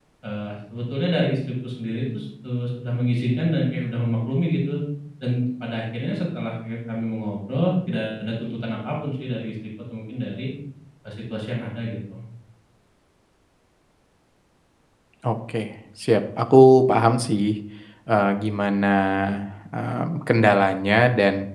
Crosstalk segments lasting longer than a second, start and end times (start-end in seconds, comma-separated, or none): none